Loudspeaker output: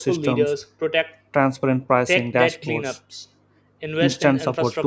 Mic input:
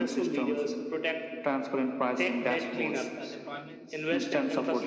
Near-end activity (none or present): present